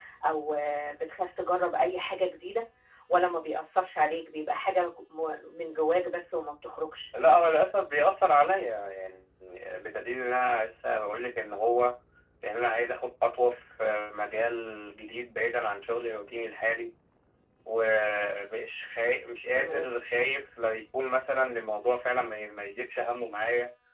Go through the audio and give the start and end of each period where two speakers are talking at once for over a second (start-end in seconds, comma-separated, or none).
none